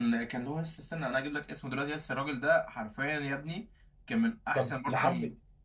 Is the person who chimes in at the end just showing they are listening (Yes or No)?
No